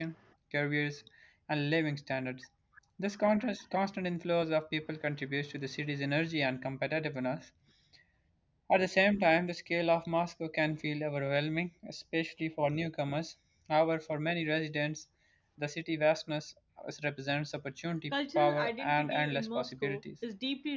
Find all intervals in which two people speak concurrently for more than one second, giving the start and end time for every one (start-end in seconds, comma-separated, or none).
18.1-20.0